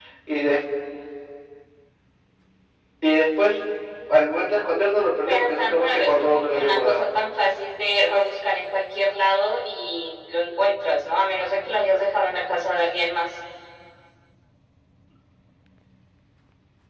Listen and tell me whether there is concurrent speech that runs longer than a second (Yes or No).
Yes